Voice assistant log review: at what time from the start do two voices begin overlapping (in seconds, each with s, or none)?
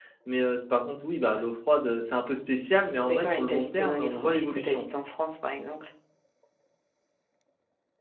3.0 s